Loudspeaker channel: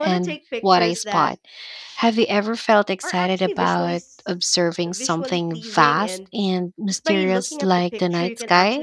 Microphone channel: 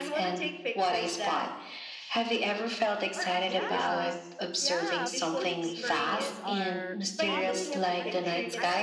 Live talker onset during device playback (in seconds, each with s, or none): 3.3 s